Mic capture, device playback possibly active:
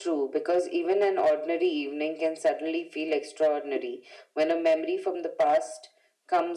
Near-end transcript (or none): none